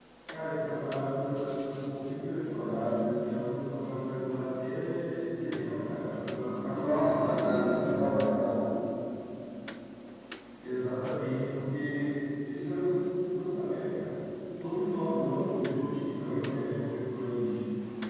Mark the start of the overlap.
6.7 s

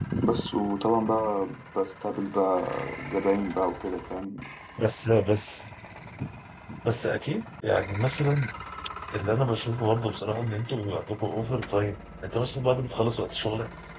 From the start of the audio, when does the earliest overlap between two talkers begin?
none

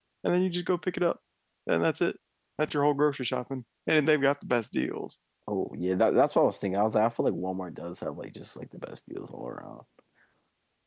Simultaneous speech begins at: none

